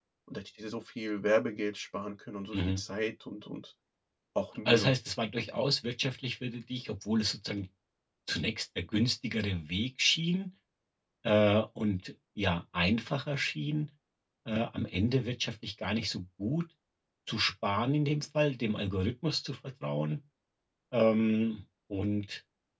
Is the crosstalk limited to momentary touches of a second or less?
Yes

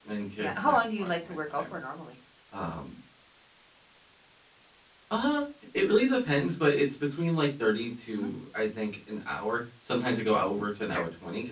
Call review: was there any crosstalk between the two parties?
Yes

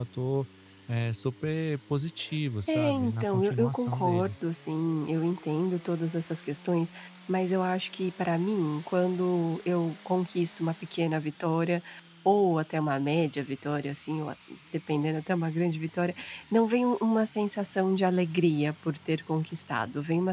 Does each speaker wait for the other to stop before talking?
No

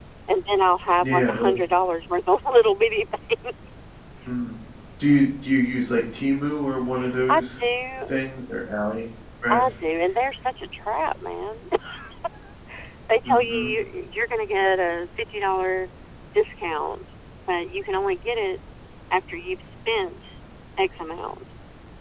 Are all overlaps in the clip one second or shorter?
Yes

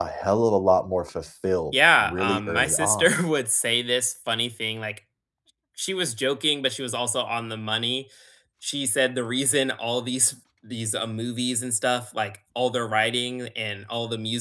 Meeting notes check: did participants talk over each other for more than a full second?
Yes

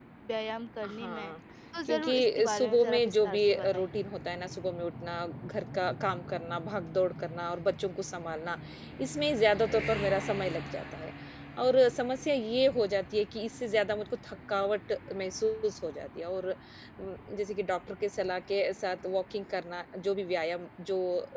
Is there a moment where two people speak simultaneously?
Yes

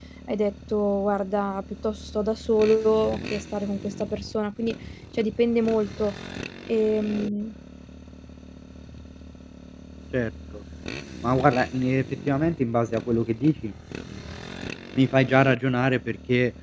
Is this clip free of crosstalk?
Yes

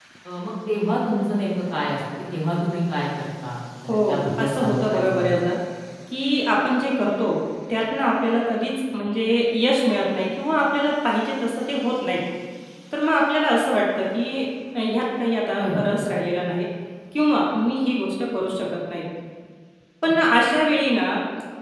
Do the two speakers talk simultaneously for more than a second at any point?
Yes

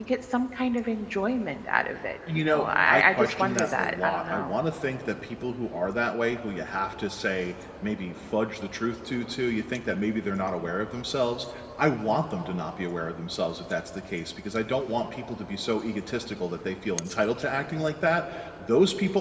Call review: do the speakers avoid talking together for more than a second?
No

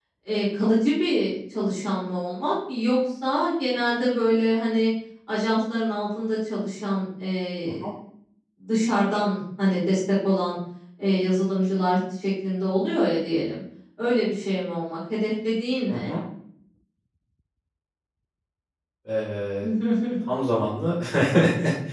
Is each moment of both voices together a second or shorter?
Yes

